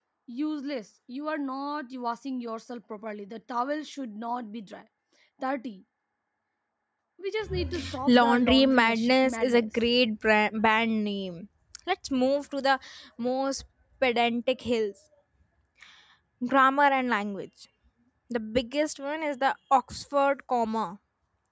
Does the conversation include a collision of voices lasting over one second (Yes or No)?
Yes